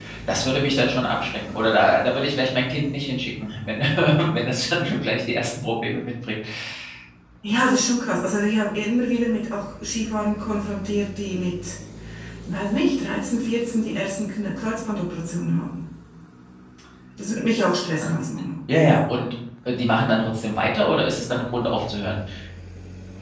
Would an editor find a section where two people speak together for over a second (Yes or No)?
No